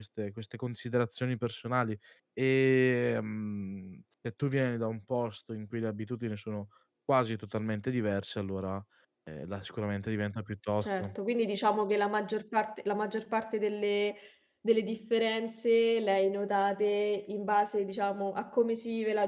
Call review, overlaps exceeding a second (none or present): none